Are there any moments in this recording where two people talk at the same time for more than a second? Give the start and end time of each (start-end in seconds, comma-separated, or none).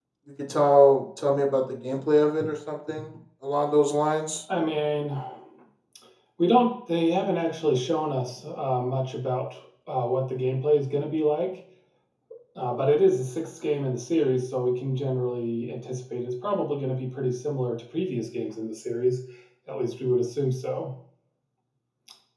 none